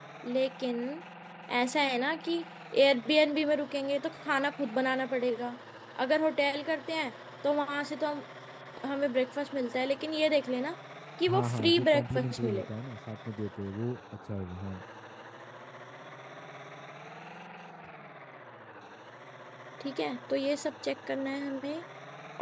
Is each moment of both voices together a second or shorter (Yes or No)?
No